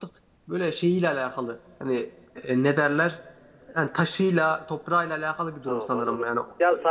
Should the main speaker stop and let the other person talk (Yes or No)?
Yes